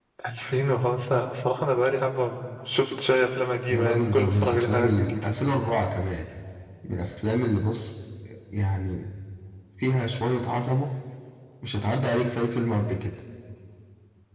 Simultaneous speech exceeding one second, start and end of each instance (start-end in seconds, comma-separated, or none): 3.7-5.2